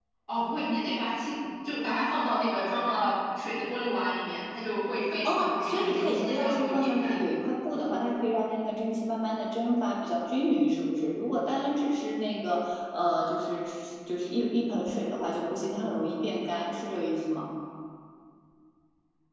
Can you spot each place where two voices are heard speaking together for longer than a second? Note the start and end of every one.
5.2-7.2

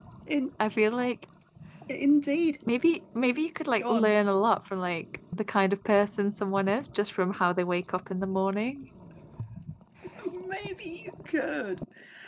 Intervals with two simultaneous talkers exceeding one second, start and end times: none

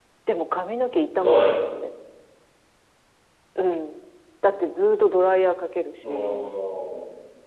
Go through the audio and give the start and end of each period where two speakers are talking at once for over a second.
none

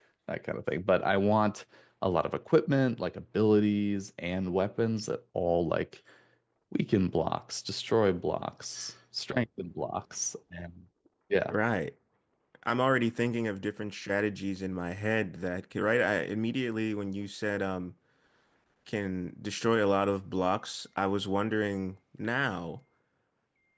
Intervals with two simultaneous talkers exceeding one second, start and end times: none

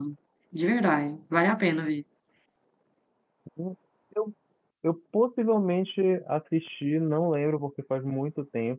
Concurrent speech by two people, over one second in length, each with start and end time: none

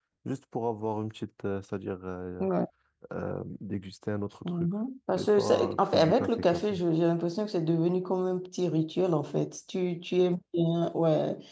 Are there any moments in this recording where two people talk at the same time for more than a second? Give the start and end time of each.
5.2-6.8

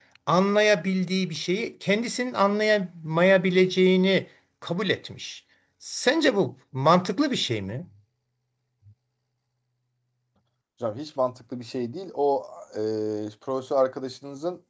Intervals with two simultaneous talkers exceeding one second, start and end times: none

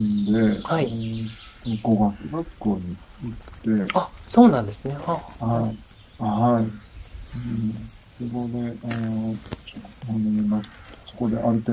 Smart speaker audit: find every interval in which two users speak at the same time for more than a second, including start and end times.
none

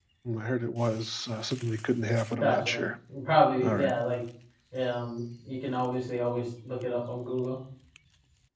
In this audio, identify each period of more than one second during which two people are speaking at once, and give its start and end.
none

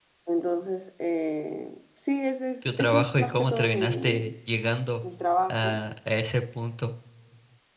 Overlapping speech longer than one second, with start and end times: 2.6-4.3

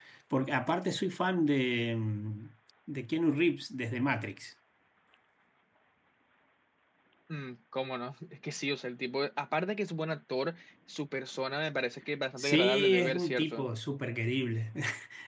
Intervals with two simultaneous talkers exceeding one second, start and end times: 12.4-13.6

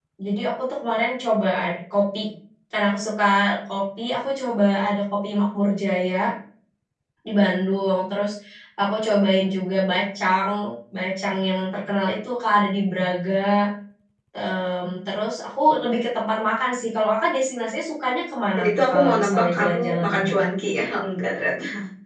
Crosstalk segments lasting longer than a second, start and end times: 18.6-20.3

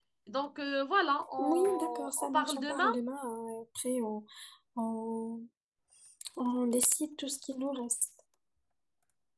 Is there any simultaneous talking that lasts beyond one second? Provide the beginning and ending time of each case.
1.4-2.9

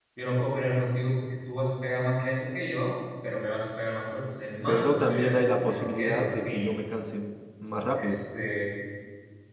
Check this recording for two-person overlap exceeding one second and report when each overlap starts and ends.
4.7-6.7

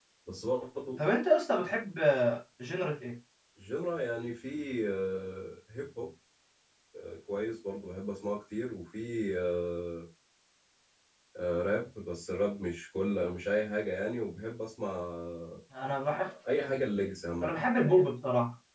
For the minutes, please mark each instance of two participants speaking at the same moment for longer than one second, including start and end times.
none

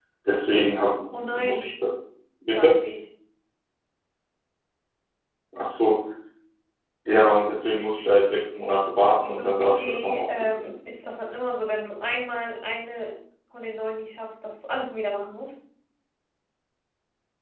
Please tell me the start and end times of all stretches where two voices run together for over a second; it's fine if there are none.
9.4-10.8

